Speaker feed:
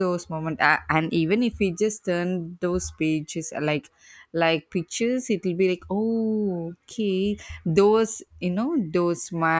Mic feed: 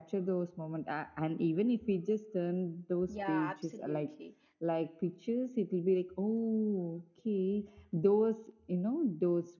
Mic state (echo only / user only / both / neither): both